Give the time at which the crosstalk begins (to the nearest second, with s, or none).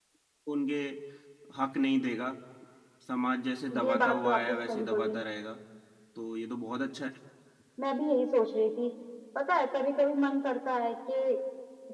4 s